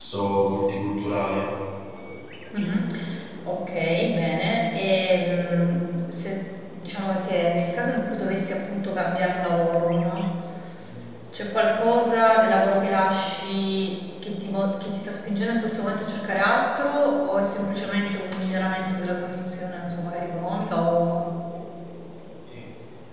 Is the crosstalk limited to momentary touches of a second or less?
Yes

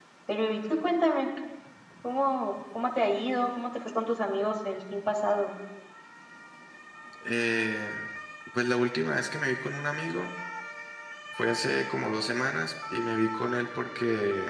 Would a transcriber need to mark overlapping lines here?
No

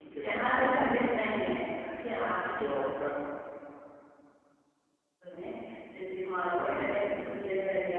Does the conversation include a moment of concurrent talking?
Yes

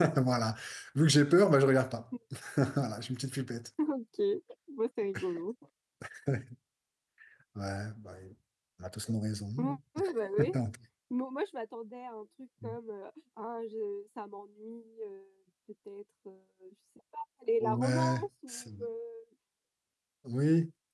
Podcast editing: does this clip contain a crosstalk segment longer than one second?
Yes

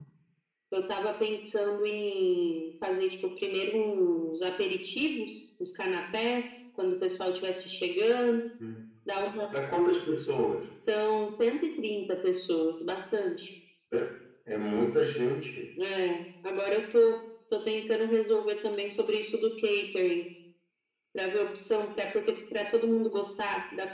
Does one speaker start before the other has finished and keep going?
No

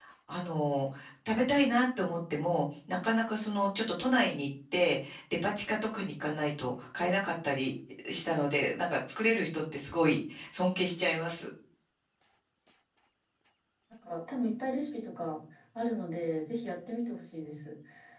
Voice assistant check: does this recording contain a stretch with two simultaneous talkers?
No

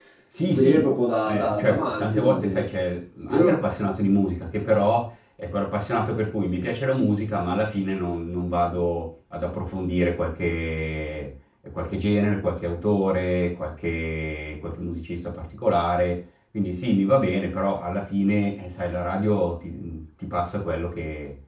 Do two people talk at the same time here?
Yes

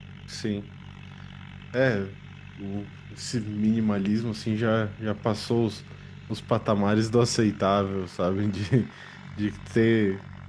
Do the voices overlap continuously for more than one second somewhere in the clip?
No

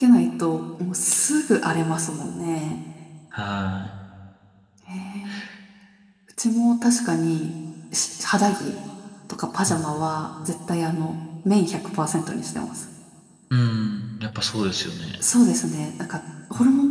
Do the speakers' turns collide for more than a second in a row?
No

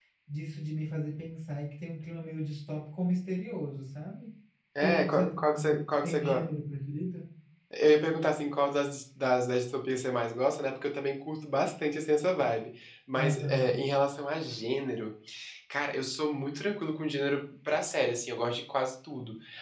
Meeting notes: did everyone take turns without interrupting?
No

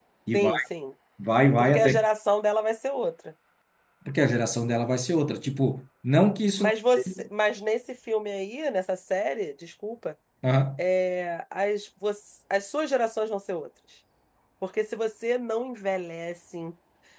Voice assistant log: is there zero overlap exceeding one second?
Yes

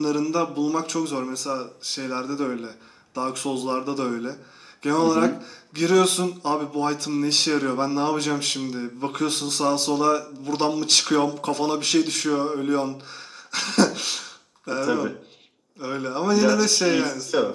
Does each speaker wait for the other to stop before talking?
No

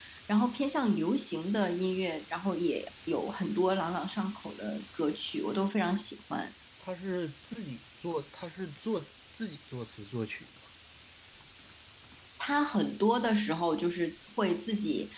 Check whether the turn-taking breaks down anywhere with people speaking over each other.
No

